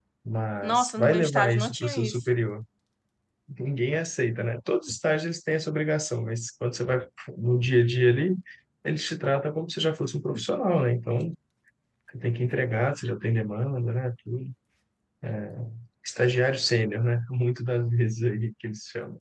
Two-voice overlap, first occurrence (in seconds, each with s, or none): 0.6 s